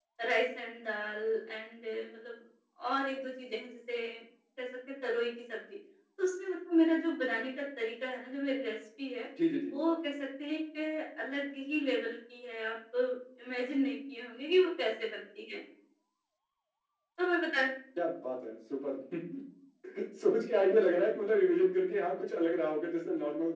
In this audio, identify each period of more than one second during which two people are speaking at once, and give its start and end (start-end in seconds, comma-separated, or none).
none